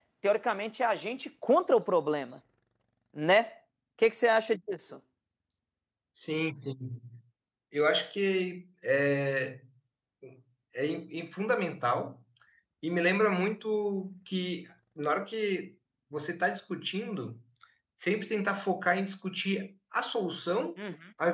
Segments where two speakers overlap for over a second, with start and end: none

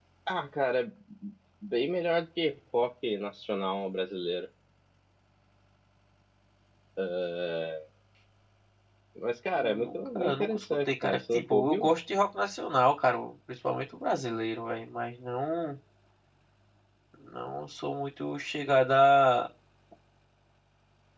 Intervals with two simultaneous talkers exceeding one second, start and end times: 9.6-11.9

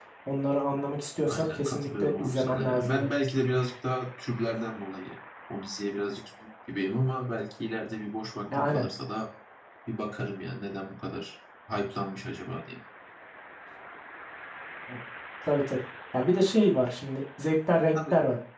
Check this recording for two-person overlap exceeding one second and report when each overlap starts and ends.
1.2-3.1

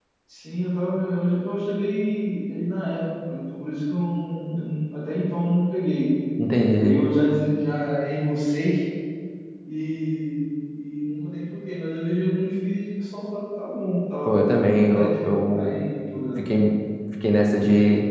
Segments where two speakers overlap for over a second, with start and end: 14.2-15.8

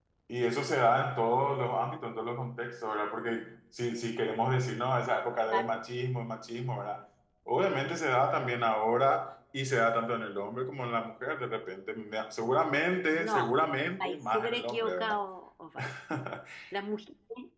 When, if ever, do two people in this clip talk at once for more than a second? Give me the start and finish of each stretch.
14.0-15.2

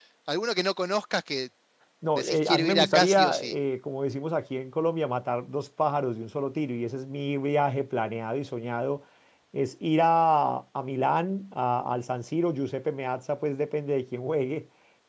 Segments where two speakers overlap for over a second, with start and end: 2.2-3.6

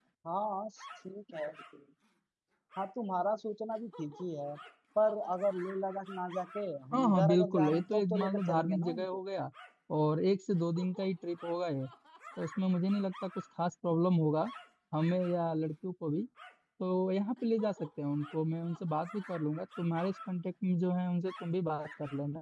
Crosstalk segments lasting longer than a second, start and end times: 6.9-9.1

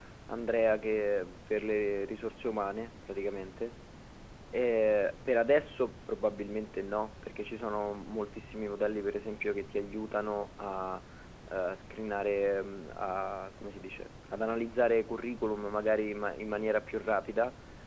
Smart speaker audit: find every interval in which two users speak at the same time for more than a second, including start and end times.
none

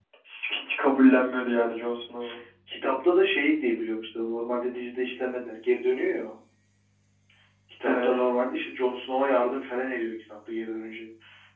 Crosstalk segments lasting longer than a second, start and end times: none

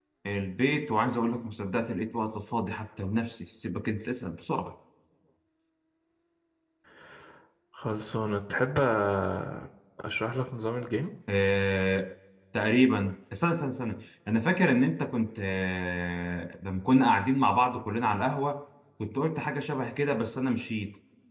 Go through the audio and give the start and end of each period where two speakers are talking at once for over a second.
none

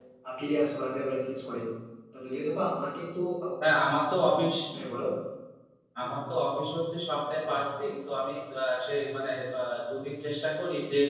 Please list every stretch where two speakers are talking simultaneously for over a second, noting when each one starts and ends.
none

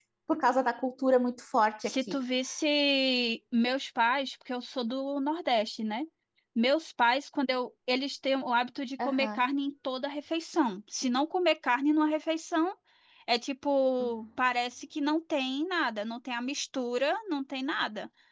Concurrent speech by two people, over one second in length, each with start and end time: none

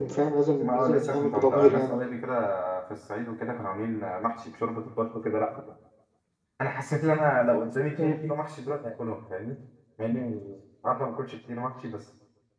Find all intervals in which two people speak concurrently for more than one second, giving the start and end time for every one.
0.6-1.9

